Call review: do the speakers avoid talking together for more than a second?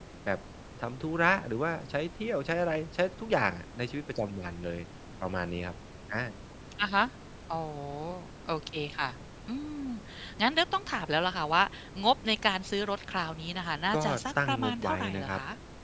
No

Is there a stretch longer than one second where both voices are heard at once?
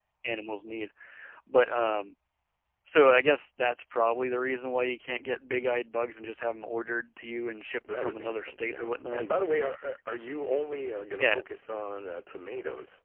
Yes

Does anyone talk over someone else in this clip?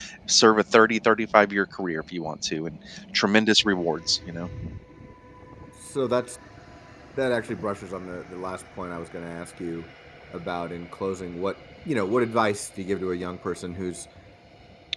No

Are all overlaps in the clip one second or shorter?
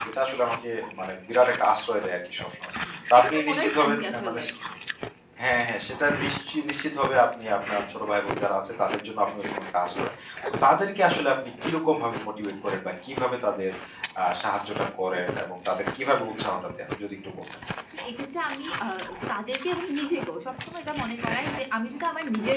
No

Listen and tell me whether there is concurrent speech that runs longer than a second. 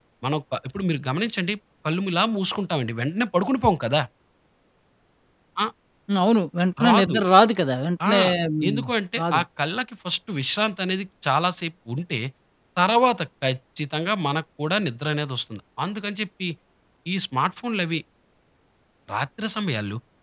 No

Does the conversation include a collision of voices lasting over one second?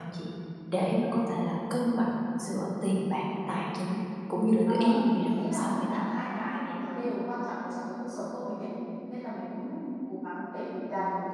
Yes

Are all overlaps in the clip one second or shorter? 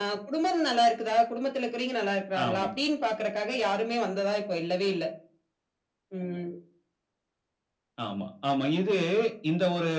Yes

